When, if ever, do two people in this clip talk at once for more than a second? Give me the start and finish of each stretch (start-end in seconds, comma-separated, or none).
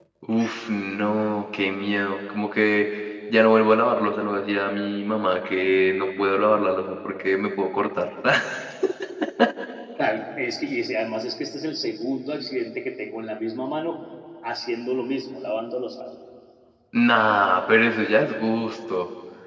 none